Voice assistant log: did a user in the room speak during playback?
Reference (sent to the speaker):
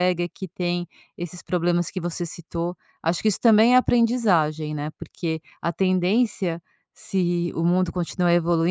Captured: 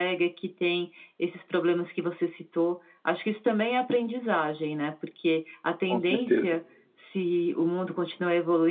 Yes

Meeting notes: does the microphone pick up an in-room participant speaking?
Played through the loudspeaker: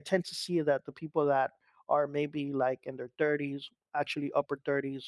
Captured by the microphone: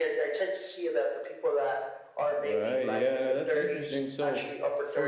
Yes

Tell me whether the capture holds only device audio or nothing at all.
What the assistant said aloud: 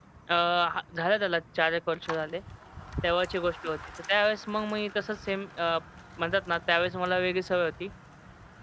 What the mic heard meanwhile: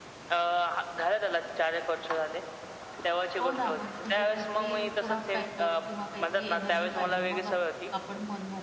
No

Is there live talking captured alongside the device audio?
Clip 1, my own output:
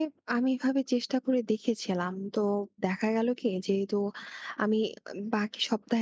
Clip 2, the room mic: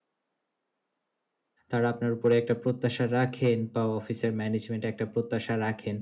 Yes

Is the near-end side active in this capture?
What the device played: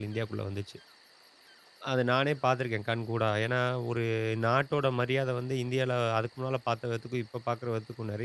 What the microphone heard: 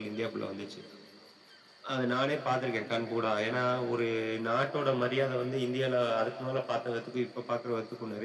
No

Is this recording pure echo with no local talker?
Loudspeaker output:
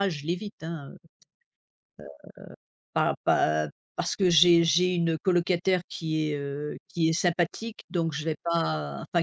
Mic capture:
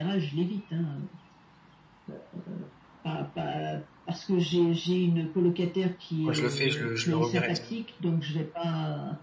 No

